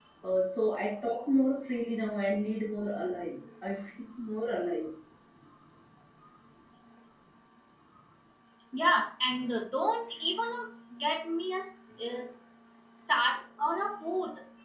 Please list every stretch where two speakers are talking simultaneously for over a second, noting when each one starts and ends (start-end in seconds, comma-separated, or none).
none